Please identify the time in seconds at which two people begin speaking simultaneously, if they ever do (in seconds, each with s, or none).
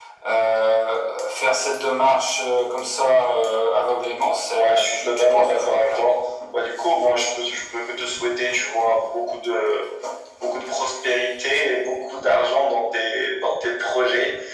4.6 s